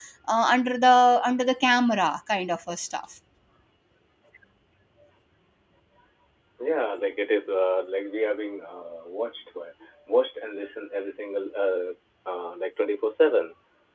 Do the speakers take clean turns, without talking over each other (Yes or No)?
Yes